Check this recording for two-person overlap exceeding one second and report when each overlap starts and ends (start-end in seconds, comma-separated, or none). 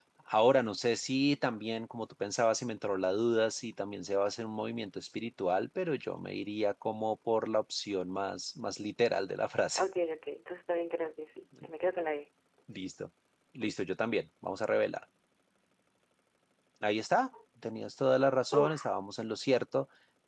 none